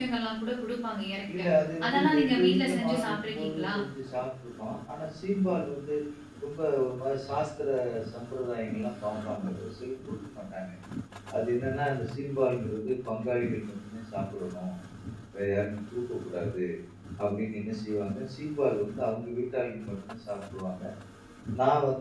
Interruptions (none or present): present